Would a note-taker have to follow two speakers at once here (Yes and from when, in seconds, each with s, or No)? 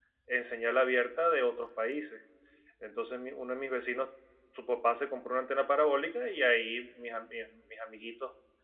No